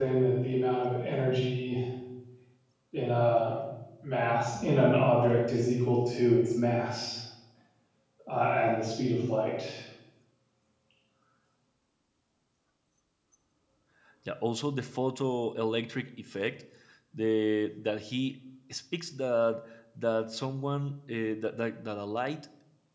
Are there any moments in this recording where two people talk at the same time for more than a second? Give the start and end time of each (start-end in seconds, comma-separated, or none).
none